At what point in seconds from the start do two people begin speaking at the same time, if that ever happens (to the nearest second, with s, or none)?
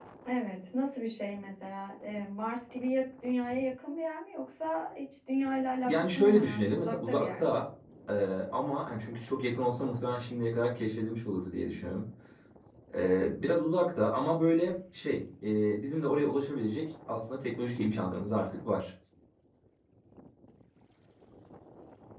6 s